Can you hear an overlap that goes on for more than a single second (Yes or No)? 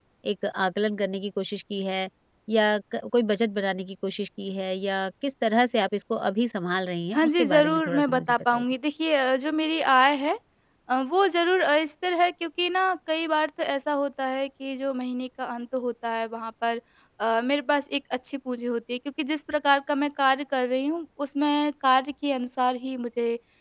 Yes